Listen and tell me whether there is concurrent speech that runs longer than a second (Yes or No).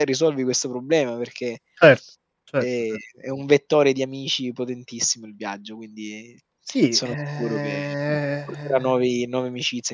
Yes